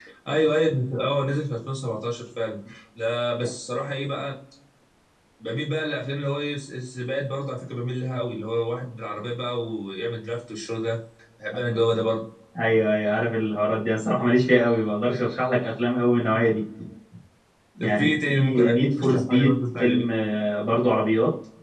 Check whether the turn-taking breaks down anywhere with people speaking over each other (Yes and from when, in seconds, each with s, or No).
Yes, from 17.8 s